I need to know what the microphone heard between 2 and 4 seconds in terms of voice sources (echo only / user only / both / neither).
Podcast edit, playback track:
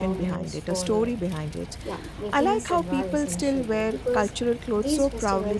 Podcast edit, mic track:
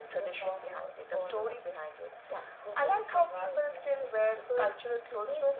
echo only